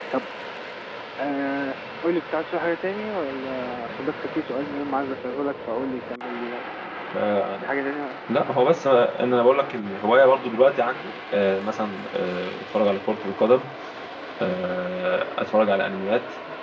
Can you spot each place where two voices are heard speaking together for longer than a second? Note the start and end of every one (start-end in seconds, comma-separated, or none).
none